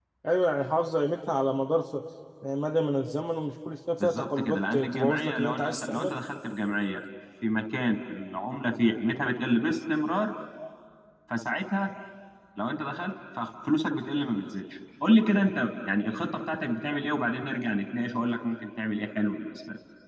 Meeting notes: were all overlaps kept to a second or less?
No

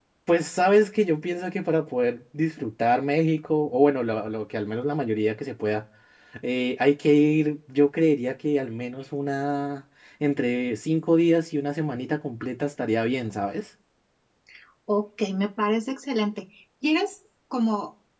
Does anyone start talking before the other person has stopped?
No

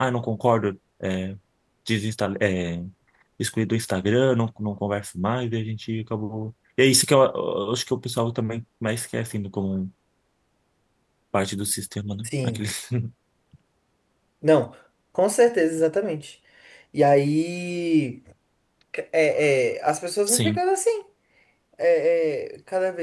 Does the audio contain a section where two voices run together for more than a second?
No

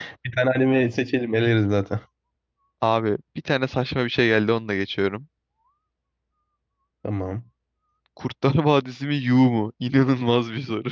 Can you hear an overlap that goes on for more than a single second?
No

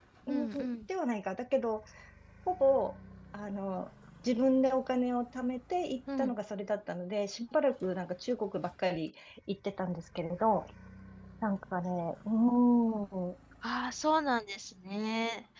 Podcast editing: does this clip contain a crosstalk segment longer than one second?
No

